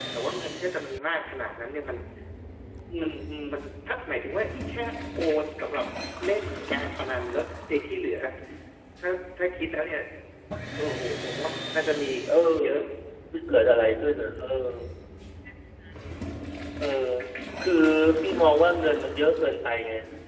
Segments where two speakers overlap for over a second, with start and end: none

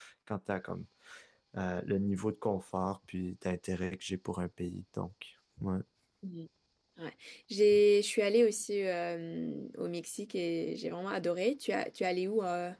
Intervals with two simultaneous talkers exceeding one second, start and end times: none

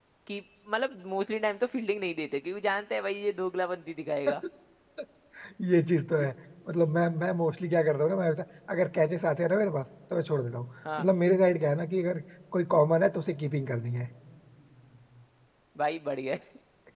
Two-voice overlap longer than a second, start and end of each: none

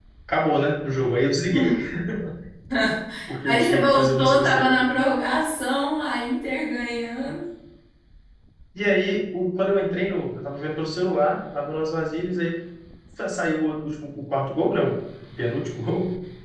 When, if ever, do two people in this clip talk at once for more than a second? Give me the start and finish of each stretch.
3.4-4.7

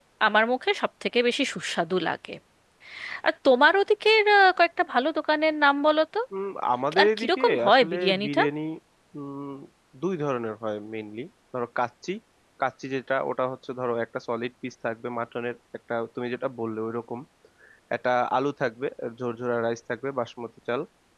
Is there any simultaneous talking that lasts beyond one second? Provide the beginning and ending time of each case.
7.0-8.4

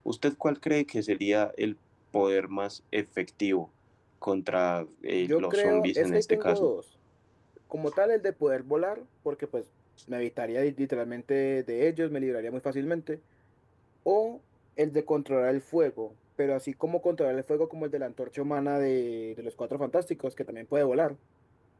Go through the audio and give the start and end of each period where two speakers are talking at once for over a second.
5.2-6.7

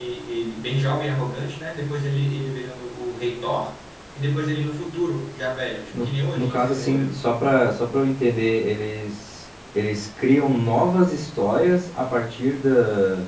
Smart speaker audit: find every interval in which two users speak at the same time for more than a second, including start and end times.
5.9-7.2

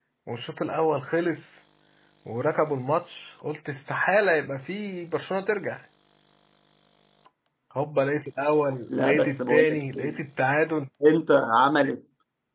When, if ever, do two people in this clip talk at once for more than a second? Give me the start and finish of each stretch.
8.9-10.2

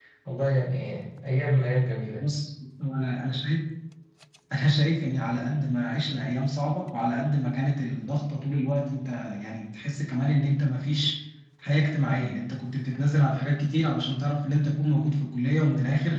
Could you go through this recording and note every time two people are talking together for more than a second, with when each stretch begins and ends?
none

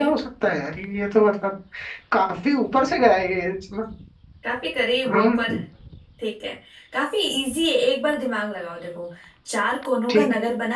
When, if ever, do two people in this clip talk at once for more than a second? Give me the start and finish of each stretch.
none

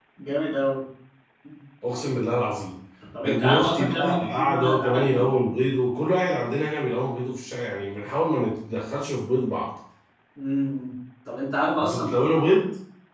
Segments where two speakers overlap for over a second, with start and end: 3.2-5.3

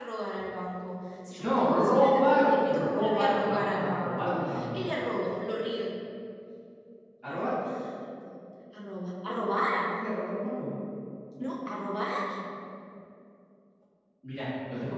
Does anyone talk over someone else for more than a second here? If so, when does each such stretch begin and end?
1.4-4.8

